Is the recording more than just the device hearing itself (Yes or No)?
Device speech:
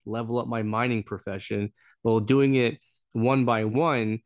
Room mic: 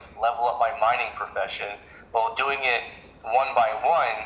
No